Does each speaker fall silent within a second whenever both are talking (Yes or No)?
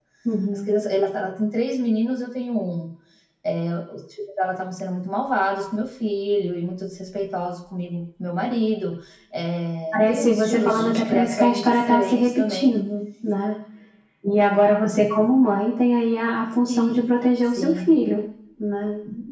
No